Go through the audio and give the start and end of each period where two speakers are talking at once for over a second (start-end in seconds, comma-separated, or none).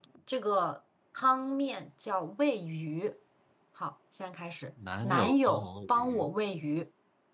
5.0-6.3